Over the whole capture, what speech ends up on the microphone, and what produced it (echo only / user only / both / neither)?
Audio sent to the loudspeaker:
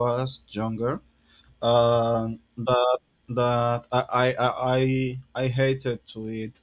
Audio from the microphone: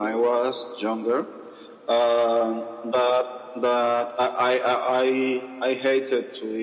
echo only